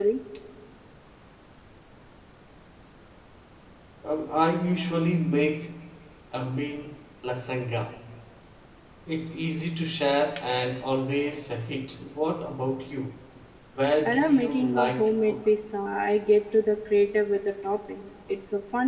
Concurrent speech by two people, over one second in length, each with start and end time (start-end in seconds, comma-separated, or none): 14.1-15.3